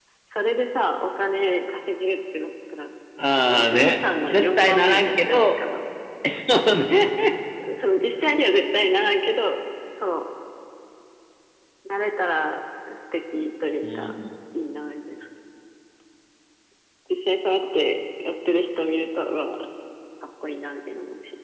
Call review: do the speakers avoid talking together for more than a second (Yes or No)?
No